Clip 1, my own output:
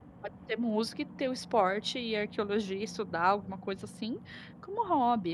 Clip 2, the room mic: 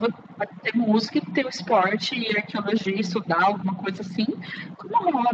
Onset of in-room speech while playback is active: none

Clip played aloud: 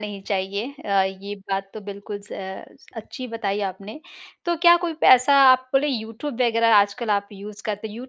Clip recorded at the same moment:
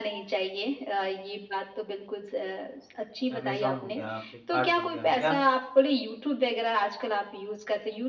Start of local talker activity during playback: 3 s

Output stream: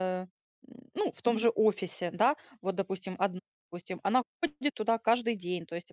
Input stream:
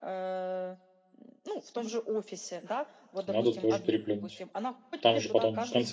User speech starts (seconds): 3 s

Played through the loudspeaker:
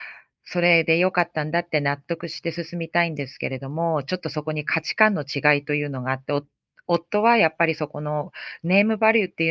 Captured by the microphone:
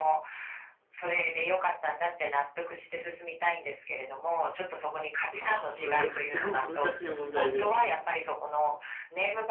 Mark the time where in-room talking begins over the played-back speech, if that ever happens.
5 s

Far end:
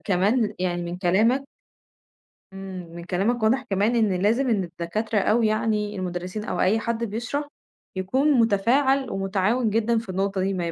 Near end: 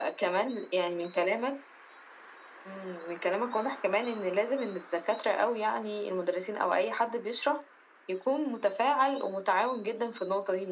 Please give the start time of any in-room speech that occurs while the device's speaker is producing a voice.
none

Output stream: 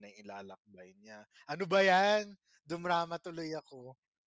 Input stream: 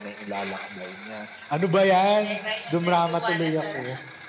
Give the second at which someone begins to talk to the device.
2 s

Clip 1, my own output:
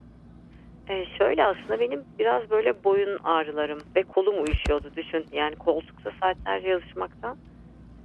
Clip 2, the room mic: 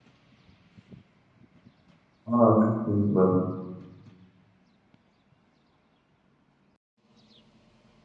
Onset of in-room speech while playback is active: 2 s

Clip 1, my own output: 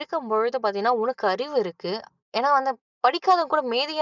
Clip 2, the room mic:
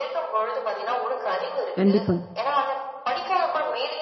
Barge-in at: 2 s

